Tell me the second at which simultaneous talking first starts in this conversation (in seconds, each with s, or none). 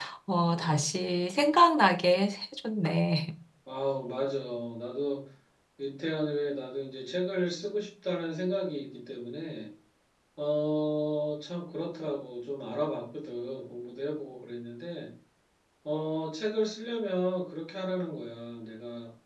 none